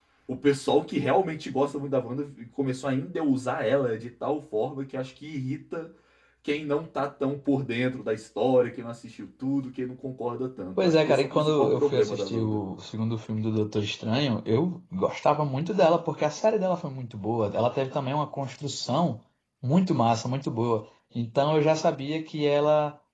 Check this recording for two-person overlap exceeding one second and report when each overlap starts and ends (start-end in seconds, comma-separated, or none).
10.8-12.6